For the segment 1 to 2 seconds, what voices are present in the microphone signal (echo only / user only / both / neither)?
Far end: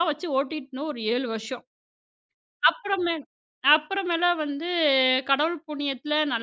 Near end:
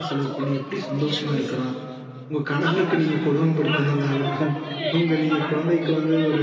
both